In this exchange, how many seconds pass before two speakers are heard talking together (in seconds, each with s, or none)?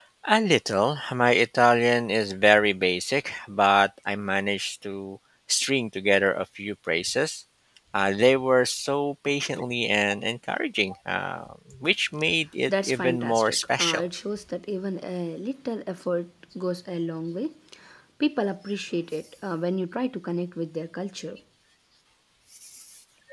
12.7 s